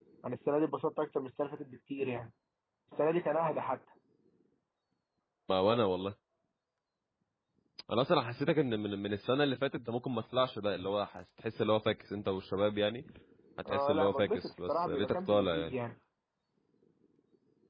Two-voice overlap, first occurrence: 14 s

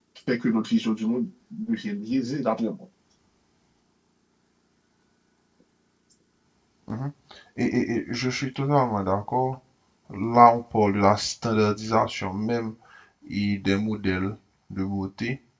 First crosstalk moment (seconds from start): none

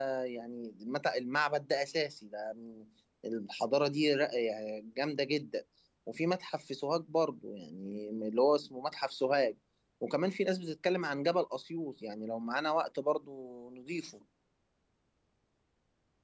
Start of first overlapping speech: none

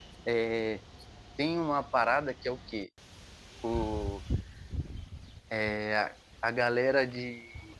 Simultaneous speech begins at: none

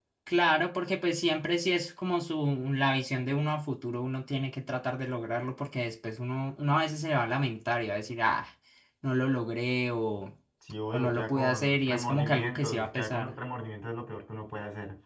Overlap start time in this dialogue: 11 s

